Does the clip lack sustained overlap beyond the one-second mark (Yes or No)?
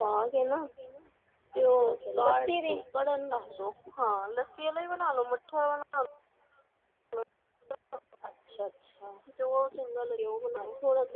No